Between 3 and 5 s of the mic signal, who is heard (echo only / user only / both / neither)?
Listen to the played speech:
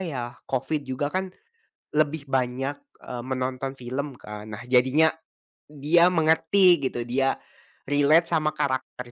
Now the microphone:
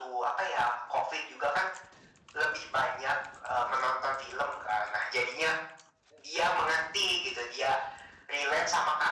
echo only